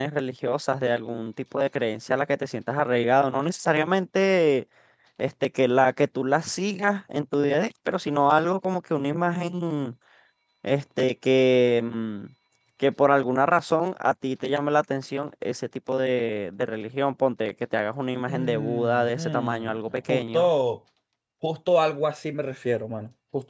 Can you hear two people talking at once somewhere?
Yes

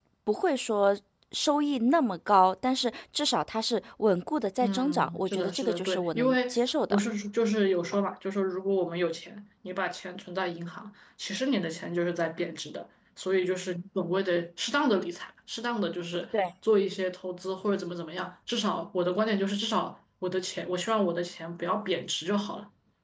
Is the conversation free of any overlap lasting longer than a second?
No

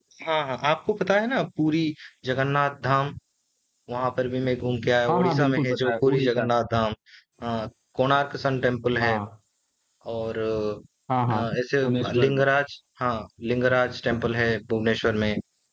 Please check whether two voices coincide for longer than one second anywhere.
Yes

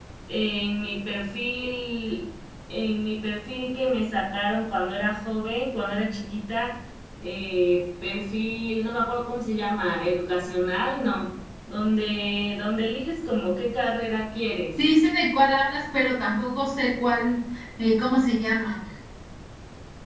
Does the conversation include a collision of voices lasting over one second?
No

